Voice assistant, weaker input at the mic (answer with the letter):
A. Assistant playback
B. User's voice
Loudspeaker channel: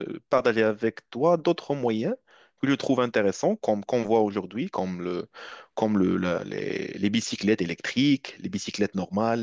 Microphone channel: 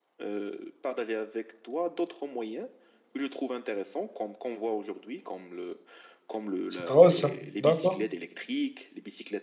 A